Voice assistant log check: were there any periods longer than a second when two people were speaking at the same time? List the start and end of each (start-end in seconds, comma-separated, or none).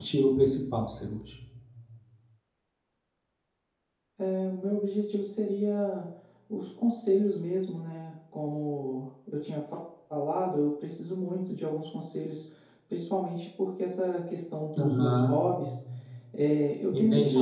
none